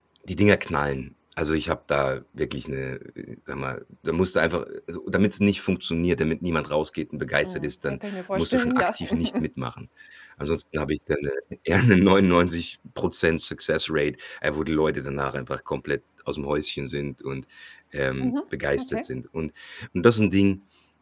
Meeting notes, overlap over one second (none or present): present